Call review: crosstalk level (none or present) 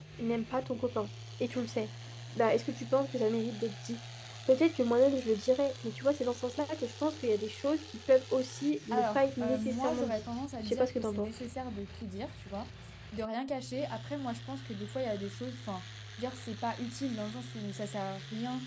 present